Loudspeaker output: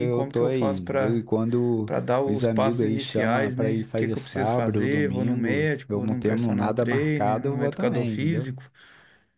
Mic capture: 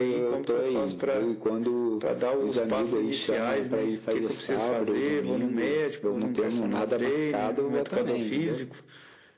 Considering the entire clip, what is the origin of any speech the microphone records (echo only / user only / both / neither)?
echo only